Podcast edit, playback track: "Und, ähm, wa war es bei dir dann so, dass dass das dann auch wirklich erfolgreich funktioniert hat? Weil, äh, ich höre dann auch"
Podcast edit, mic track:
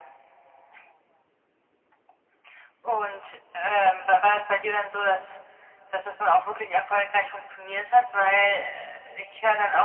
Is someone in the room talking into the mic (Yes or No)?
No